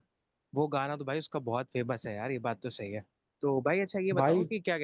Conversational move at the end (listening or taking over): listening